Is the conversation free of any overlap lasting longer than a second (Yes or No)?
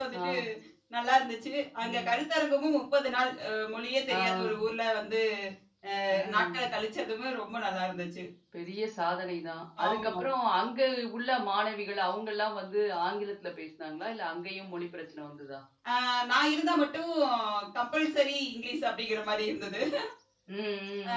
Yes